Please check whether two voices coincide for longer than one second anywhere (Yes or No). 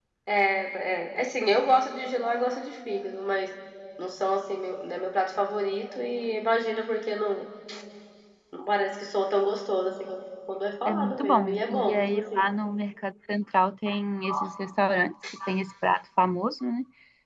Yes